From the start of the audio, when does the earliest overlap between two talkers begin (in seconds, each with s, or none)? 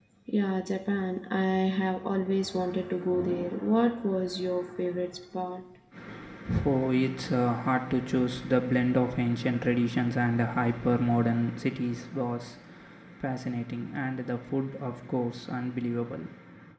none